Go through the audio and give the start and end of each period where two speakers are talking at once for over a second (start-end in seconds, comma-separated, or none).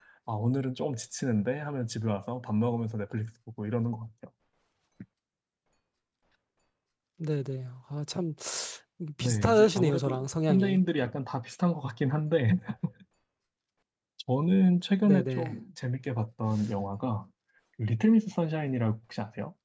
9.2-10.8